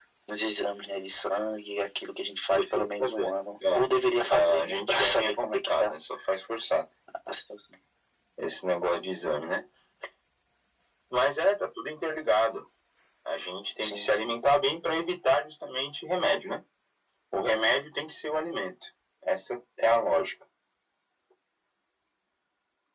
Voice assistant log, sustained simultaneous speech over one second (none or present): present